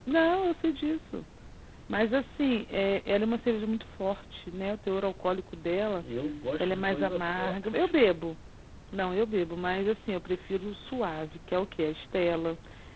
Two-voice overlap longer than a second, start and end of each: 6.6-7.9

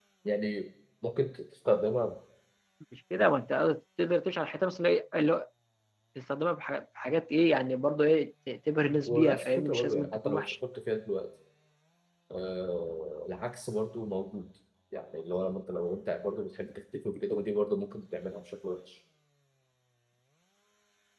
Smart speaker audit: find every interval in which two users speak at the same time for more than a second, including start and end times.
9.1-10.4

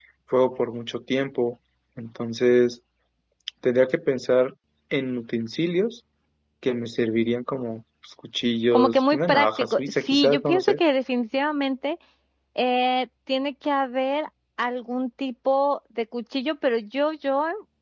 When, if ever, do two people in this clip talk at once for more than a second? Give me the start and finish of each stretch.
8.7-10.8

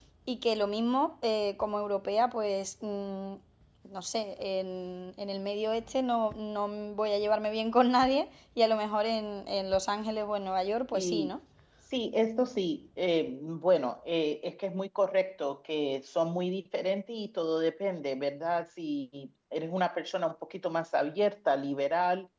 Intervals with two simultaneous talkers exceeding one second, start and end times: none

